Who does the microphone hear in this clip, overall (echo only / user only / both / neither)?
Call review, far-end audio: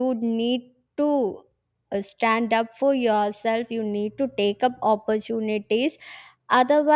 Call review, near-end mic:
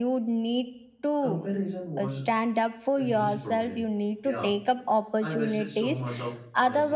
both